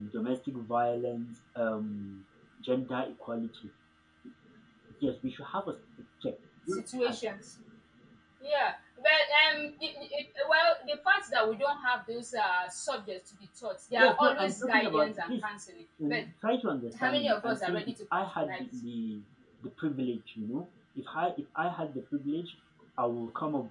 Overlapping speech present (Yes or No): Yes